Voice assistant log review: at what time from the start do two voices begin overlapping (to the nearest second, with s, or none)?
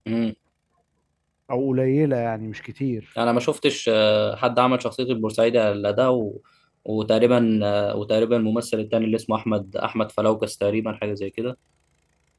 none